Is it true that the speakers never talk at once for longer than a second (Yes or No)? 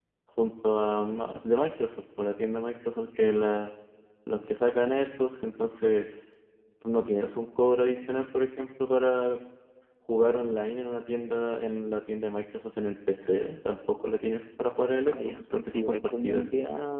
No